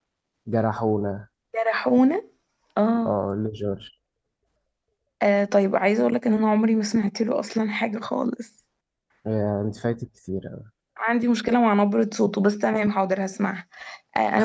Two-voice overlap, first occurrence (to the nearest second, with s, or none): none